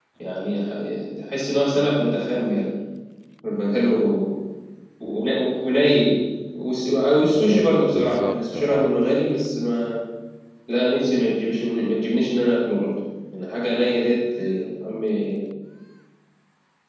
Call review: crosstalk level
present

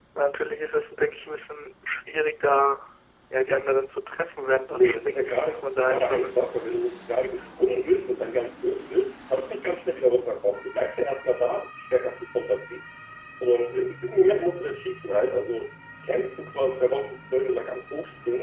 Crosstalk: present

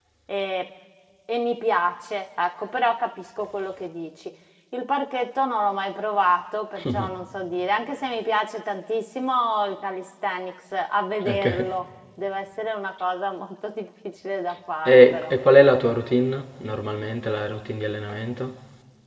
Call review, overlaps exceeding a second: none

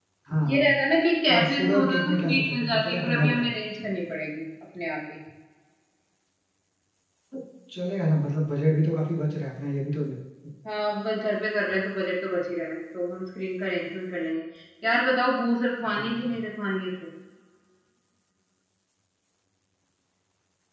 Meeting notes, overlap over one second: present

